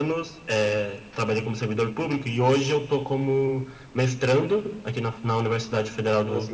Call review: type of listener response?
listening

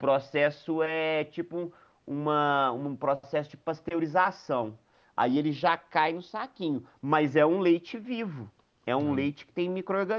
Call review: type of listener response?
listening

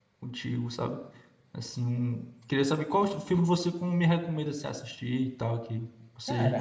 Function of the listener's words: taking over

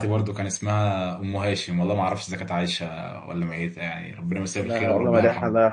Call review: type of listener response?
taking over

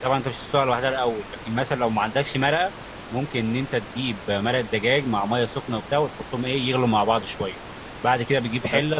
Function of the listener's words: listening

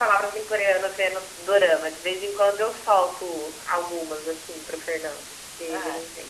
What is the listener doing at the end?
taking over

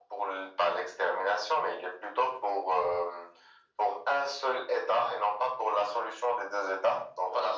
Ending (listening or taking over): listening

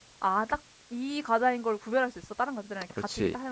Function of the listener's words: taking over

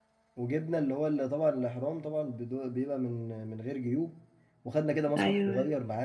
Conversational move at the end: listening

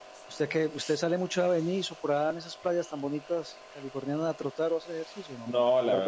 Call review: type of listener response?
taking over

